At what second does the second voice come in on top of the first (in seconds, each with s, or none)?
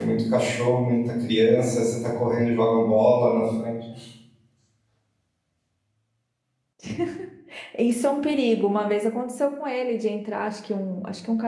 none